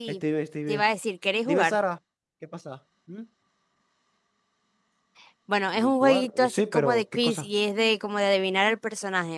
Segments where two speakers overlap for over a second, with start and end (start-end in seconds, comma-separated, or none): 5.8-7.5